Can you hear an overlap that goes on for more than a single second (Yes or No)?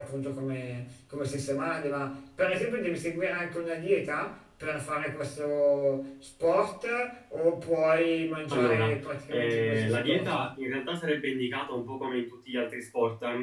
Yes